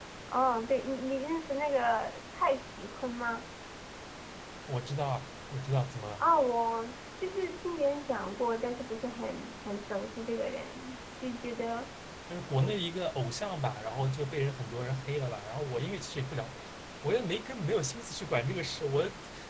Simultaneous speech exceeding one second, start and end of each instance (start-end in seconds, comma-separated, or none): none